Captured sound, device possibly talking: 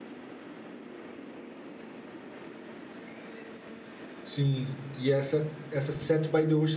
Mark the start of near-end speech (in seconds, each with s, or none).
4.2 s